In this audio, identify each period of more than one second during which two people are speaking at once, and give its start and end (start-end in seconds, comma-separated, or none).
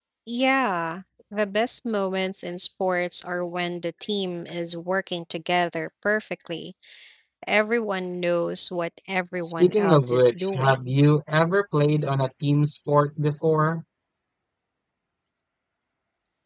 9.4-10.9